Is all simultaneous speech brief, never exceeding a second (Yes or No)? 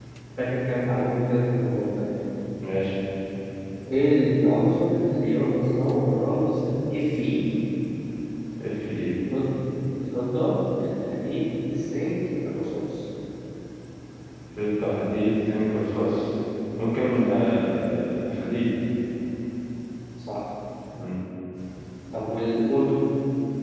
Yes